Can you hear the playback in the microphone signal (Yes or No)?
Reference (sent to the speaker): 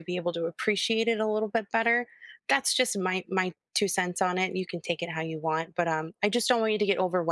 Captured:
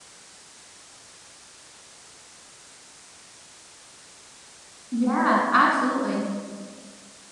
No